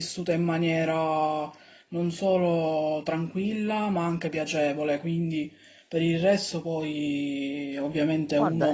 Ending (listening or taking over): taking over